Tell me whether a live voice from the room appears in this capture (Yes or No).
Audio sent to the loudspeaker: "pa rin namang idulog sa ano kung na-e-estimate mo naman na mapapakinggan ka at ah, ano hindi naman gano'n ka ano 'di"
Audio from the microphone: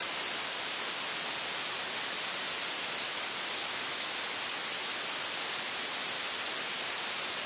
No